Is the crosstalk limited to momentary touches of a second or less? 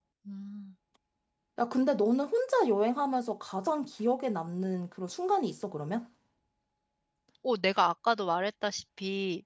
Yes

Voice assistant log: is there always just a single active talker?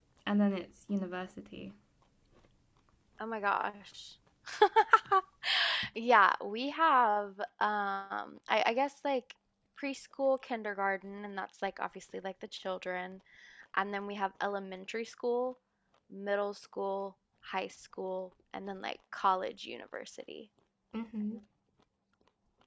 Yes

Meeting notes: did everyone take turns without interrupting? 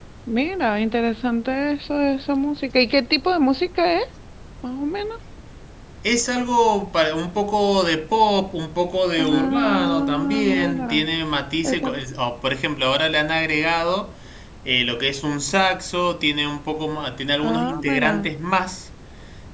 No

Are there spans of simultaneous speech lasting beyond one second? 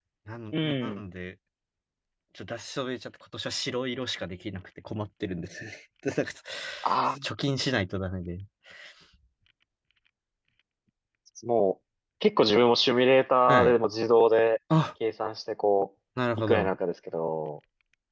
No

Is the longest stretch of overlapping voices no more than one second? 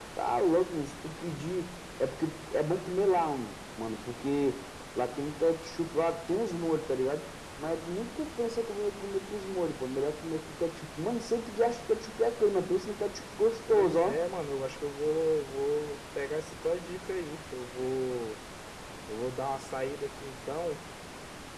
Yes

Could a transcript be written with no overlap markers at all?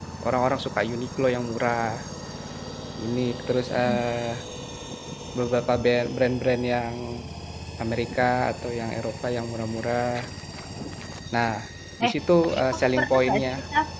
No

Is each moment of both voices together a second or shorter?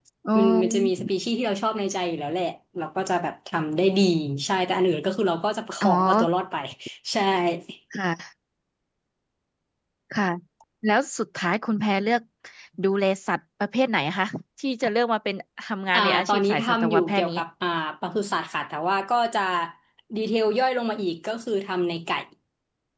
No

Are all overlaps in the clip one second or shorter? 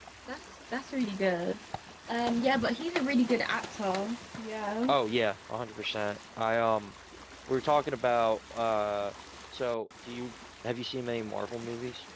Yes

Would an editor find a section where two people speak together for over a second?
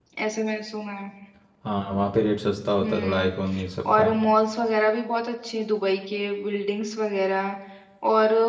No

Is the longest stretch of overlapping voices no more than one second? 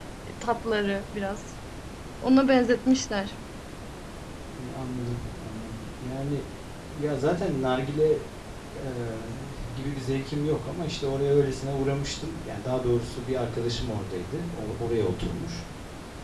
Yes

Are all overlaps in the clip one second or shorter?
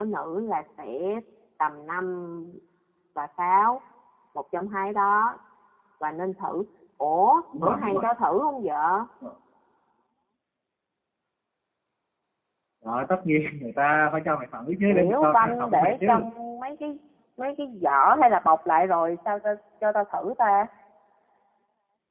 No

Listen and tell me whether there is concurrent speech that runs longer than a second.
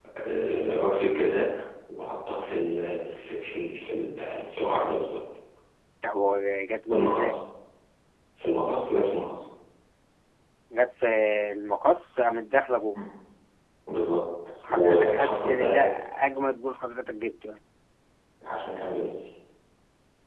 Yes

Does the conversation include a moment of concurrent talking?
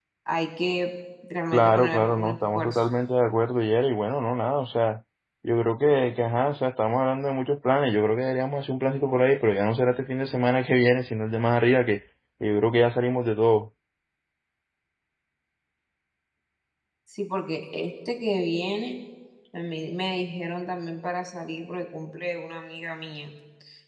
Yes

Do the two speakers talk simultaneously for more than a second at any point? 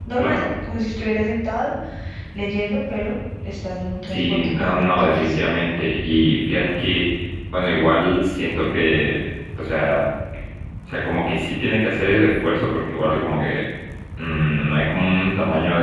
Yes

